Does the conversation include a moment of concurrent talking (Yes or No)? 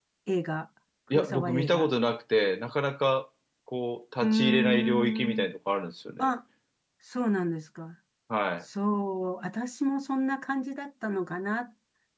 Yes